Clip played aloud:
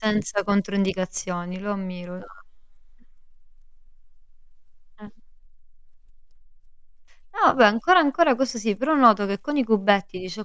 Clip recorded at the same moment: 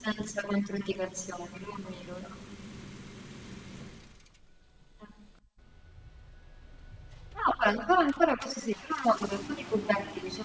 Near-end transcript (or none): none